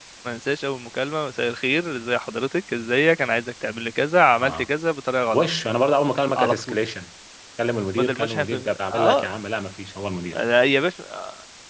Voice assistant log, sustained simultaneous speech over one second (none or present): present